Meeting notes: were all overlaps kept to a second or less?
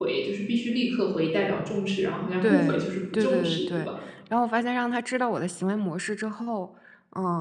No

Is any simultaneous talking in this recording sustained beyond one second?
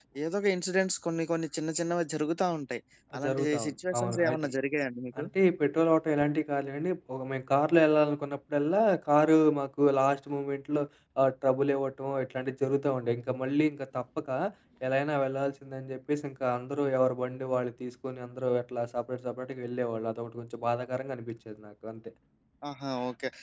Yes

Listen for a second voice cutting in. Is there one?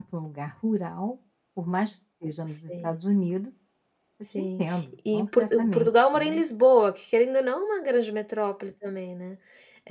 Yes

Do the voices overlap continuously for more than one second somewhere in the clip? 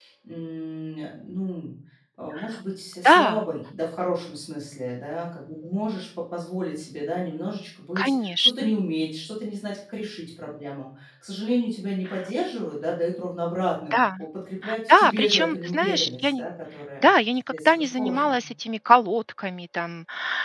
Yes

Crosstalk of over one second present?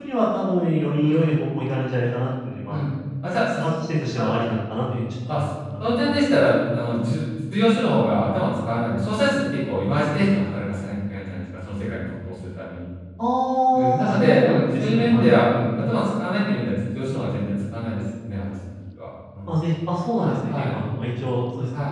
Yes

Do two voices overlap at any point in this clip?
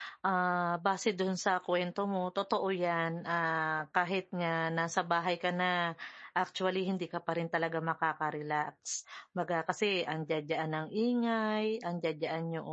No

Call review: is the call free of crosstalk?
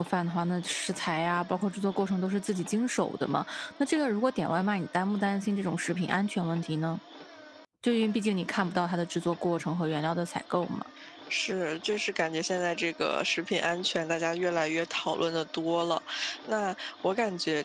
Yes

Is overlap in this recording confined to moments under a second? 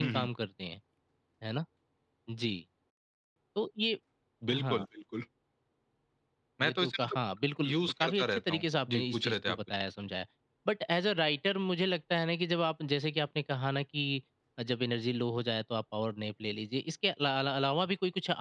No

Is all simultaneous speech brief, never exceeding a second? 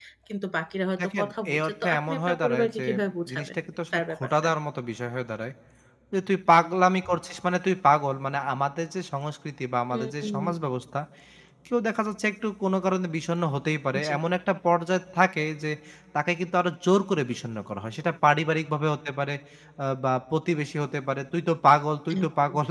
No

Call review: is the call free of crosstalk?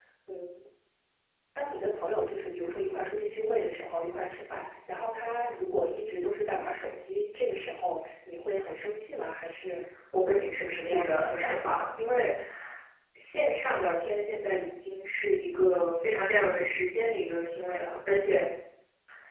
No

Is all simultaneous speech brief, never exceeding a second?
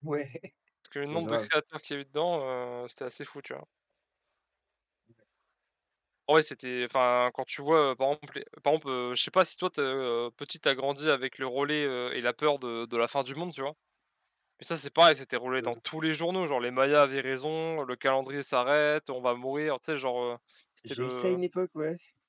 Yes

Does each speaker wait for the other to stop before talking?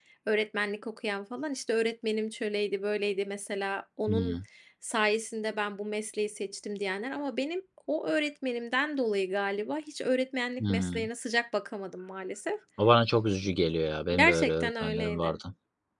No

